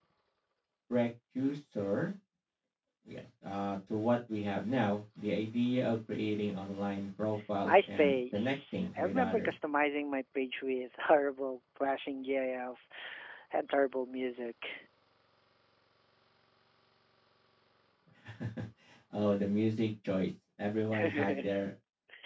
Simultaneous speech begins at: 7.6 s

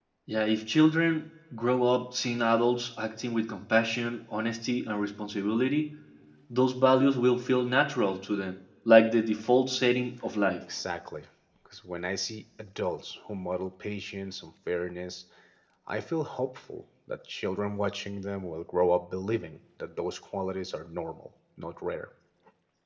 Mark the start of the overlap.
none

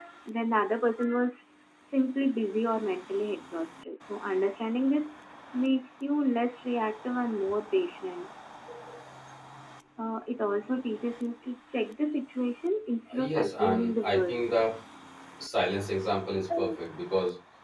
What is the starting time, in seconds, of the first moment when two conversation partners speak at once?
13.1 s

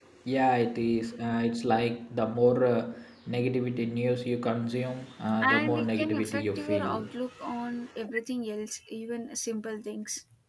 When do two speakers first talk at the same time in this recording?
5.4 s

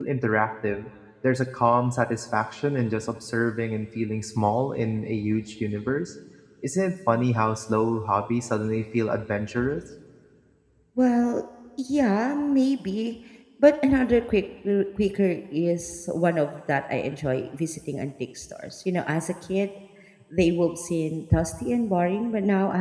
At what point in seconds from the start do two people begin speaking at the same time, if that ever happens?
none

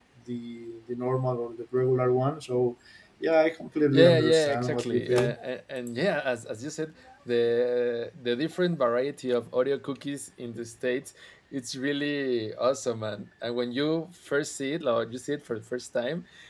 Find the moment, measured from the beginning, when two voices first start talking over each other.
3.9 s

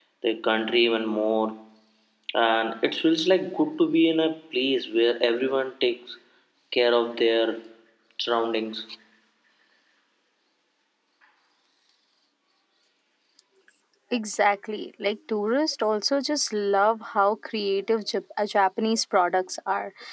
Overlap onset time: none

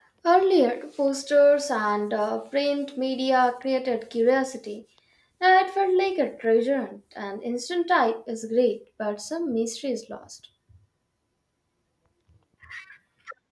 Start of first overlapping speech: none

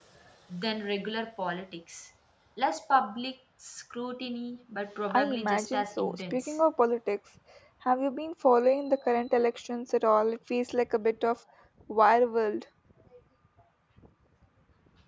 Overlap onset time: 5.1 s

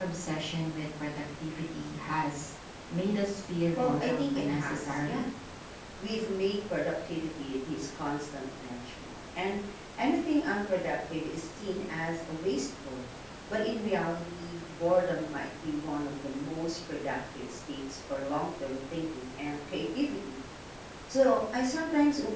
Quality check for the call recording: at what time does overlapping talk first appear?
3.8 s

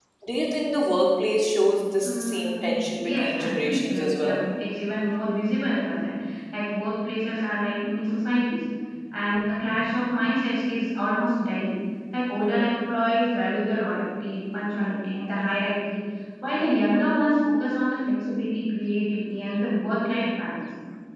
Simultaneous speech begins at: 2.1 s

